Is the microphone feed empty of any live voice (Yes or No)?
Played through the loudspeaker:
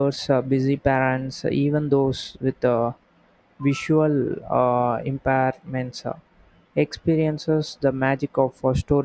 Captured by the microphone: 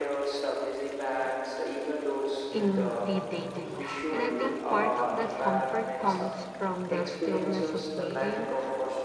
No